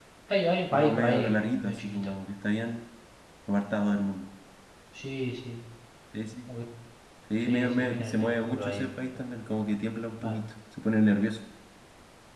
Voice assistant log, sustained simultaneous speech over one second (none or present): present